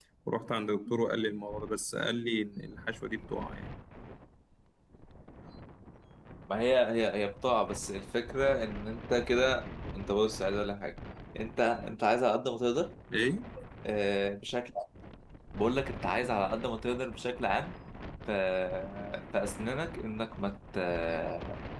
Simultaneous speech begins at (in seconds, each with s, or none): none